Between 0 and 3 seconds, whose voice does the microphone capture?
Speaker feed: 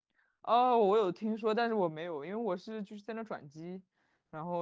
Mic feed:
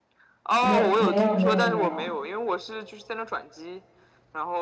both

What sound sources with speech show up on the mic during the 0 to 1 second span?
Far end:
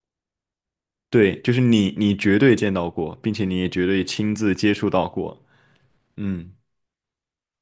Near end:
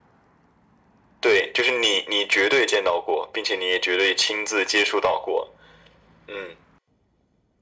neither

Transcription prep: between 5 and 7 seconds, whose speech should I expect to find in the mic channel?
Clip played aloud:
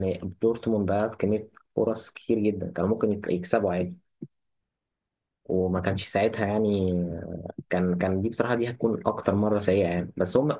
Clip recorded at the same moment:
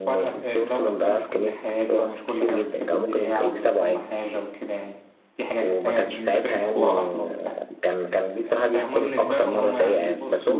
both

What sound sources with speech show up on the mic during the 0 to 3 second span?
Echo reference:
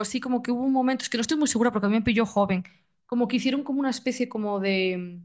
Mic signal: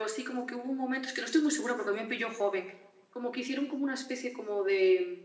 echo only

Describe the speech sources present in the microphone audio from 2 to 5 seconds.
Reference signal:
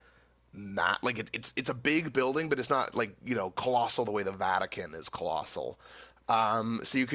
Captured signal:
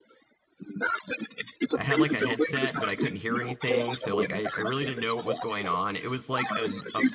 both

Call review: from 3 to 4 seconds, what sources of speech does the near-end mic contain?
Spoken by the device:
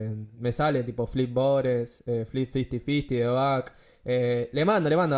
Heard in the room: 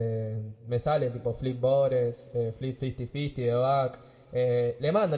echo only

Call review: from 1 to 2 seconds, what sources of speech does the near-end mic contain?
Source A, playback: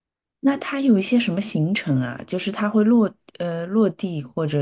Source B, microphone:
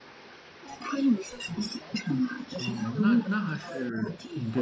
echo only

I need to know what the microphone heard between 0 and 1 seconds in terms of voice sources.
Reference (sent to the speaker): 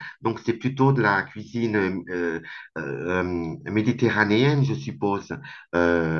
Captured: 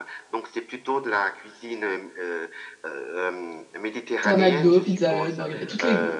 echo only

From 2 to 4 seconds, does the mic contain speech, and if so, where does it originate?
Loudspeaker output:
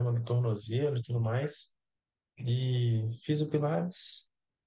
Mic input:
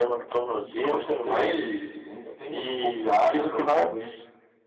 both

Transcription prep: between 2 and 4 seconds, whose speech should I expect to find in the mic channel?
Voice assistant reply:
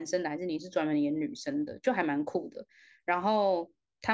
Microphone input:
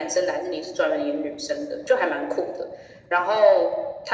echo only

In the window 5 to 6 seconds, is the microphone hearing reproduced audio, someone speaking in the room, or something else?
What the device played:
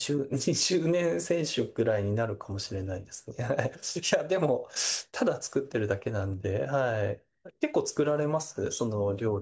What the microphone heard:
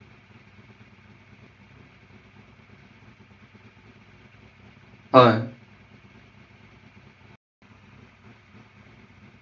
user only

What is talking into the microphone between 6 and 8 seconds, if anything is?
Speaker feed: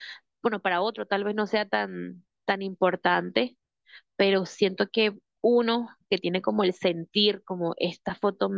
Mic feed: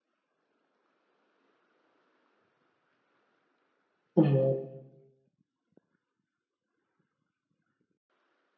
neither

